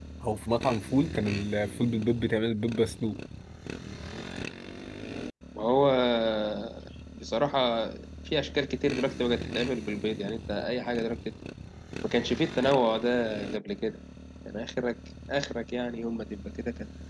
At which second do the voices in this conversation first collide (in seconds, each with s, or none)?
none